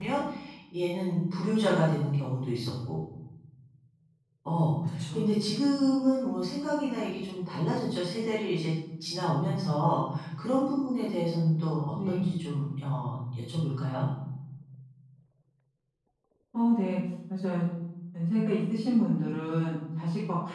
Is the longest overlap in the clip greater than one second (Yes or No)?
No